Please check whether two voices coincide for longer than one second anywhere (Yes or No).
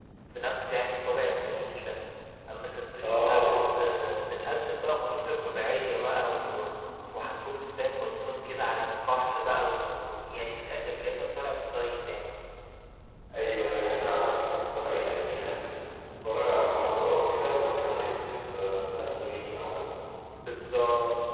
No